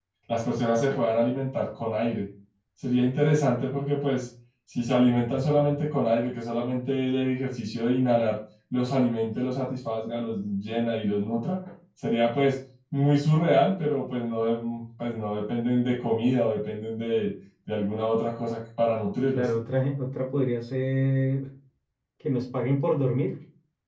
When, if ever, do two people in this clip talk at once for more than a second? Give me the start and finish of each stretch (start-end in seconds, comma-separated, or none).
none